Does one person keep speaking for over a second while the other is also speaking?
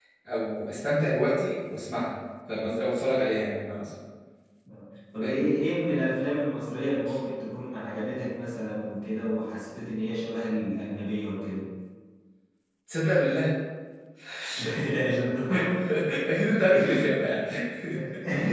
No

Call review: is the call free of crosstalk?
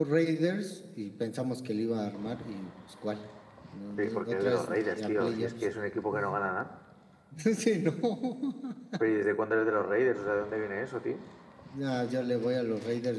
No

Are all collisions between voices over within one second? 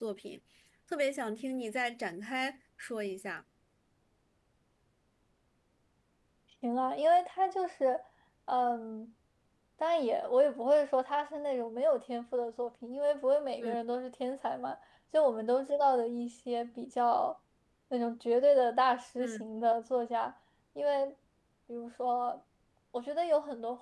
Yes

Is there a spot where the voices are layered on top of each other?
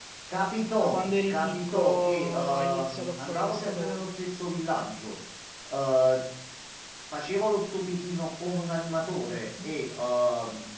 Yes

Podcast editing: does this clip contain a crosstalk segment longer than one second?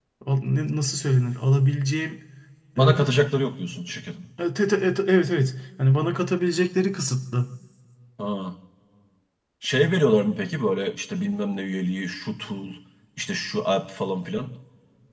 No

